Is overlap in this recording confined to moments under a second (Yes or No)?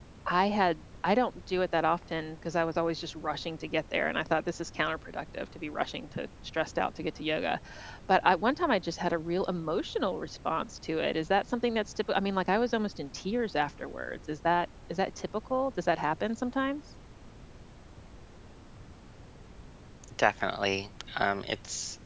Yes